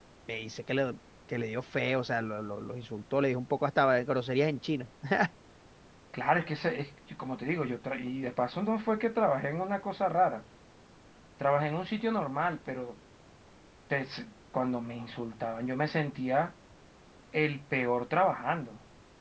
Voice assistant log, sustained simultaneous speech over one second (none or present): none